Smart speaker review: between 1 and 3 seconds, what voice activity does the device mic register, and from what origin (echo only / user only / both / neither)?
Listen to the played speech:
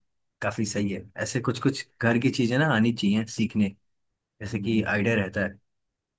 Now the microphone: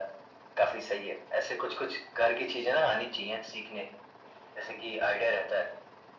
echo only